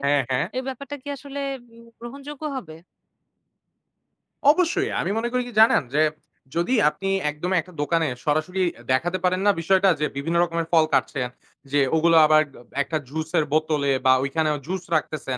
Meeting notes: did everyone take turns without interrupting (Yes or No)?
Yes